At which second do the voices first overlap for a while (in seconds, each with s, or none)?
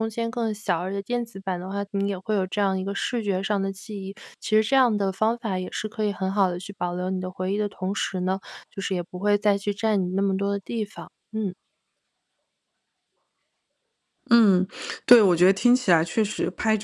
none